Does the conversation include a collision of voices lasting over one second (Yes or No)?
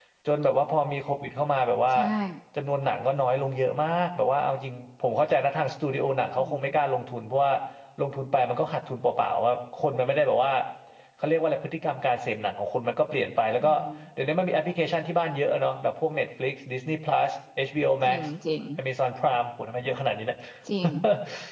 No